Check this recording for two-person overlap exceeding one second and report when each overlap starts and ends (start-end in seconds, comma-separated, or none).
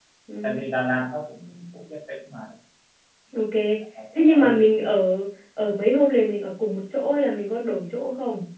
none